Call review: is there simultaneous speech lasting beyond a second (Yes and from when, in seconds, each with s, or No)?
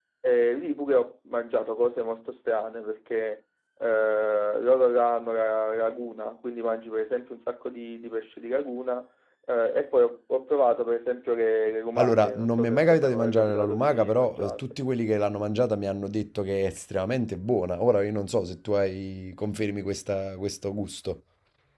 Yes, from 12.0 s